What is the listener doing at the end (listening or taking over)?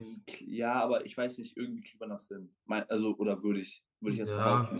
taking over